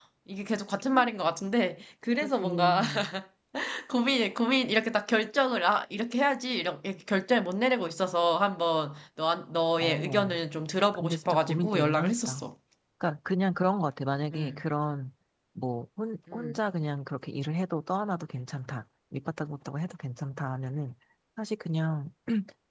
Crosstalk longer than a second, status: present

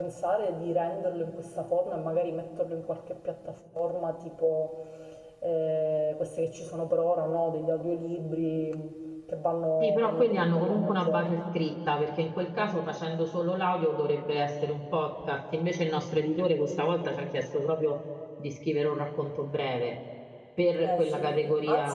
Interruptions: present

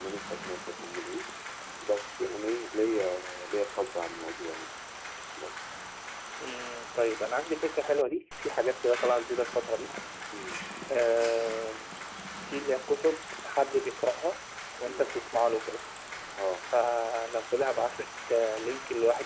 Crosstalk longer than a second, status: none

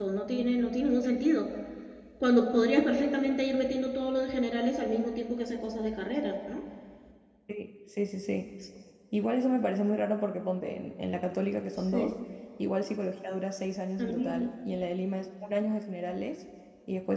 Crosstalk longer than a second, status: none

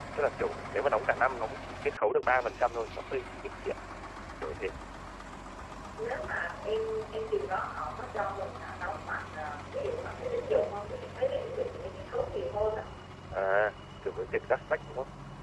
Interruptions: none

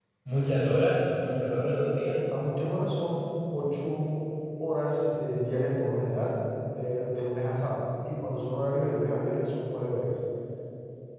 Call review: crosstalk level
none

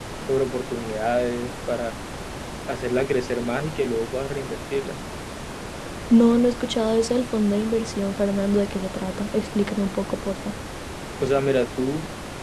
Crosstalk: none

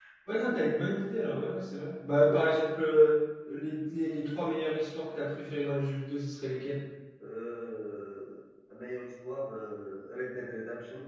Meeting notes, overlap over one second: none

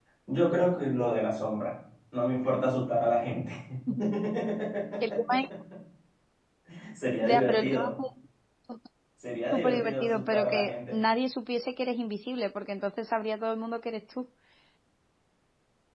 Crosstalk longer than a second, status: present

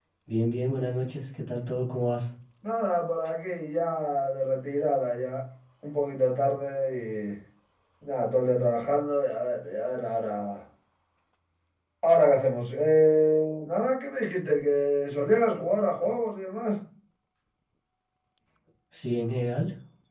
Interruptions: none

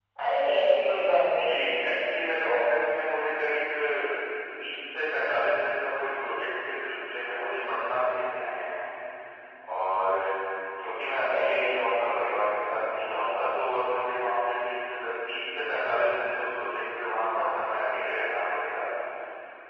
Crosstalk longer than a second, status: none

